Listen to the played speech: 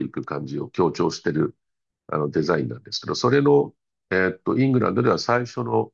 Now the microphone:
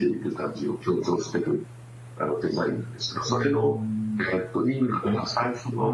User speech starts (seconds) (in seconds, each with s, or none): 3.3 s